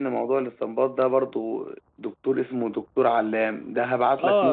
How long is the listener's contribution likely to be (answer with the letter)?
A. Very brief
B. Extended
B